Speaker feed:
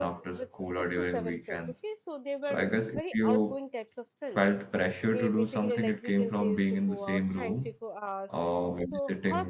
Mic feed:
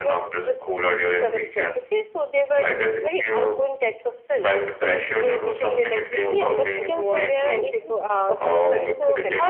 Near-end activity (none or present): present